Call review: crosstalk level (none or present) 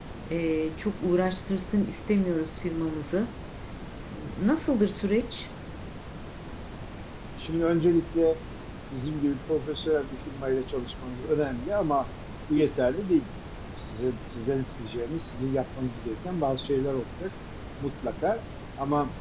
none